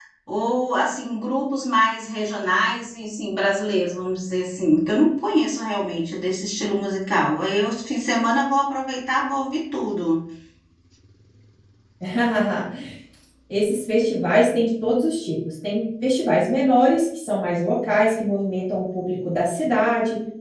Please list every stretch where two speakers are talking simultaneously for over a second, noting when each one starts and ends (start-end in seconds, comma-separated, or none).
none